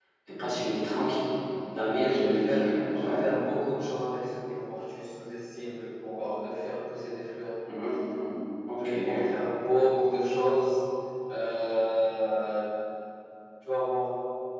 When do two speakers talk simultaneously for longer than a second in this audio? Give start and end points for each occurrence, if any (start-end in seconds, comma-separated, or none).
1.9-3.2